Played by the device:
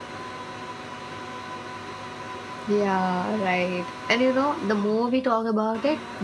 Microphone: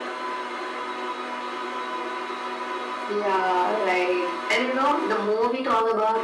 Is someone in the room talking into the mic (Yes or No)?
No